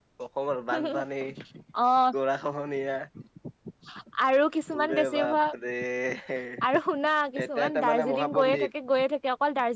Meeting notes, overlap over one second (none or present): present